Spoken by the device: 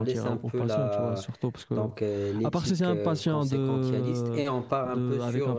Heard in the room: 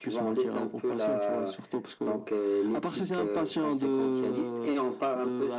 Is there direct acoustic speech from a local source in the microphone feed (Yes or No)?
No